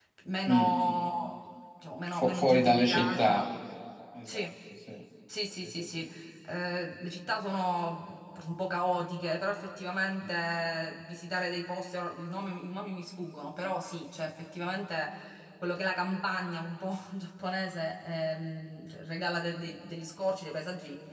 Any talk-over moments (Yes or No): Yes